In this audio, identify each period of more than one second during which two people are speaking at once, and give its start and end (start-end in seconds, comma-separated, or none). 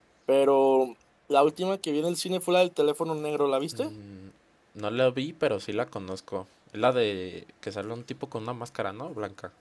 none